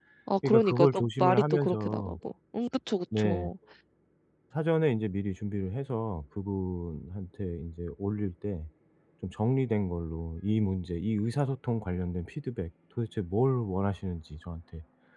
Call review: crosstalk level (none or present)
present